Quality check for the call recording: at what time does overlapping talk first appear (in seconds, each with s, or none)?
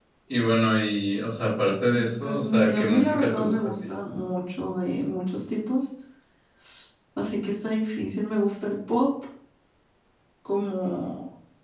2.2 s